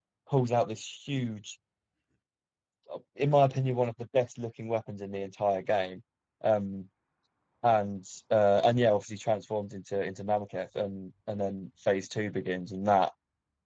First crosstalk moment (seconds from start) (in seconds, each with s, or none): none